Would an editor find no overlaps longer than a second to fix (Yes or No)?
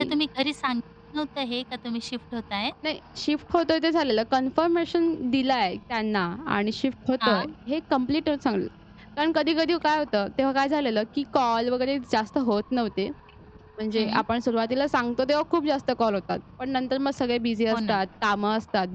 Yes